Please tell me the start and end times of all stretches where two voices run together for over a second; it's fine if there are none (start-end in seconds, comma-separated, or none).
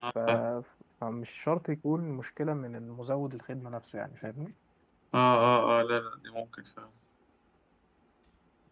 none